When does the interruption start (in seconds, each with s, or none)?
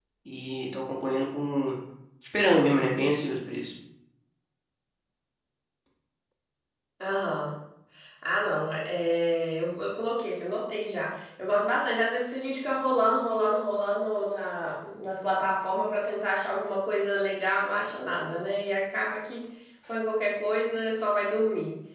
none